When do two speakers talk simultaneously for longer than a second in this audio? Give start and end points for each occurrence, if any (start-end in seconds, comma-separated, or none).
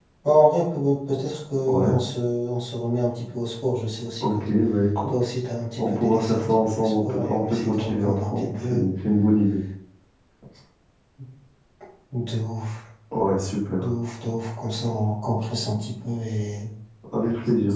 5.8-8.8